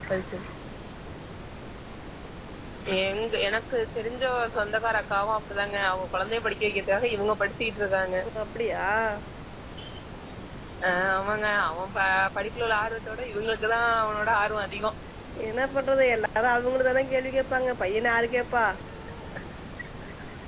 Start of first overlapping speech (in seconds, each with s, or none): none